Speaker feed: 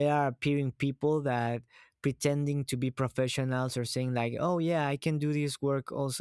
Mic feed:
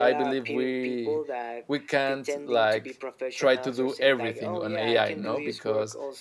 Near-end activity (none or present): present